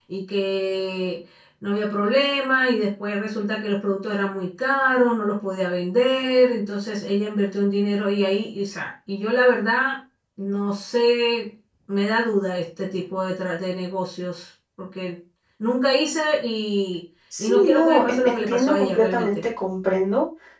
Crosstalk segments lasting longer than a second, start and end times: 17.4-19.5

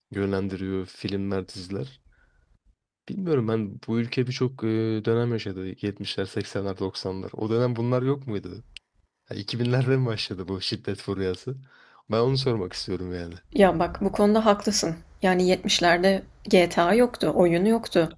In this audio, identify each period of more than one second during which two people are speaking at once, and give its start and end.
none

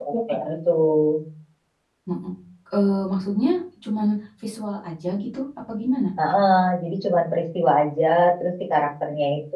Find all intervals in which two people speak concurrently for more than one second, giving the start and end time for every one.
none

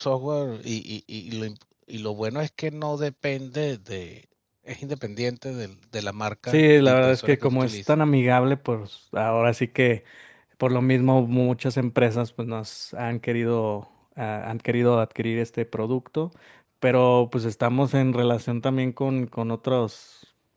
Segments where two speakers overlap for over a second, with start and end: 6.5-7.8

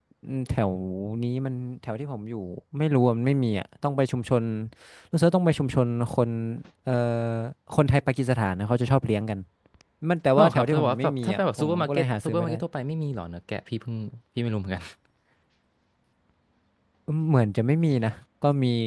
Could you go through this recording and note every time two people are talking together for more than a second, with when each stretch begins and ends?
10.4-12.5

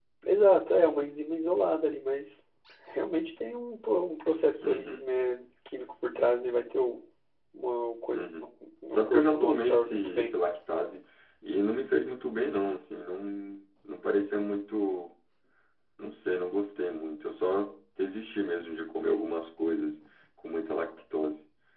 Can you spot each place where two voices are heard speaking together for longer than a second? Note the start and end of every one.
8.9-10.3

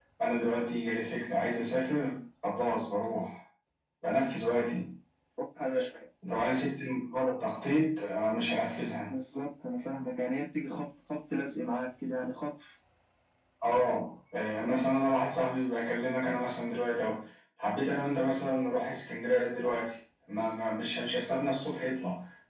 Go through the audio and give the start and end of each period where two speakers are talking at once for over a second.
none

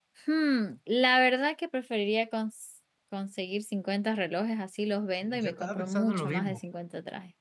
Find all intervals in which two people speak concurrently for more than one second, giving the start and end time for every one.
5.2-6.6

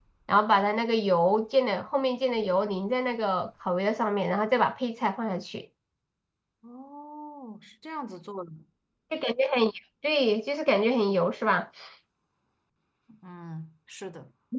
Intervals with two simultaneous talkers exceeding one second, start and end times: none

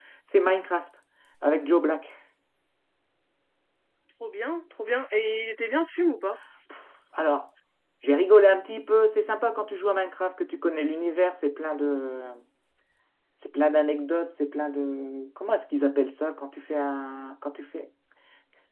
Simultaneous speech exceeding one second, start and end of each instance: none

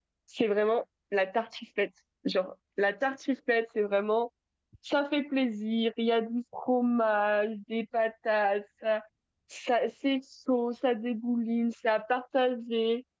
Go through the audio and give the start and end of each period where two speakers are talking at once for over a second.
none

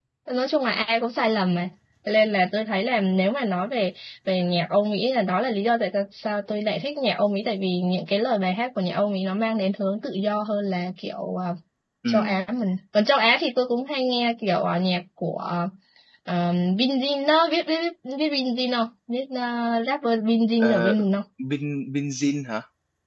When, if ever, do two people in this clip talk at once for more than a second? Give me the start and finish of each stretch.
none

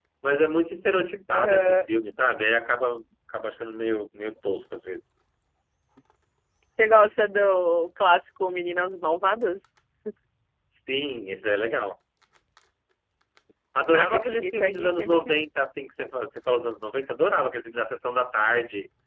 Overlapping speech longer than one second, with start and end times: 13.9-15.3

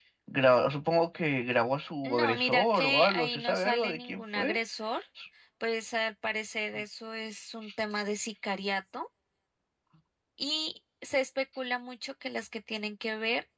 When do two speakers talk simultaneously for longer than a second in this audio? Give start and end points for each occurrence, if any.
2.0-4.6

